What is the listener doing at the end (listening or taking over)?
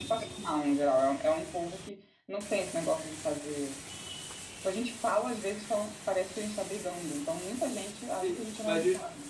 taking over